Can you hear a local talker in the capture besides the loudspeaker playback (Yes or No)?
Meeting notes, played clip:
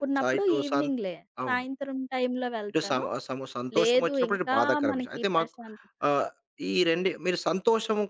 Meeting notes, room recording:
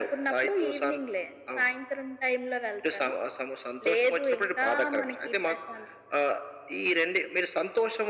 No